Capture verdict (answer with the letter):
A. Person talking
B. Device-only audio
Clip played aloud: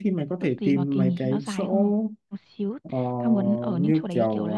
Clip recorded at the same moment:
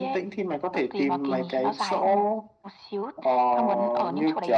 B